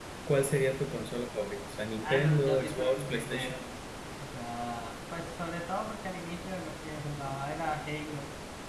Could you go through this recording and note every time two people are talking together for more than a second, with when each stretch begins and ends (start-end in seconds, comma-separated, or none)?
2.0-3.6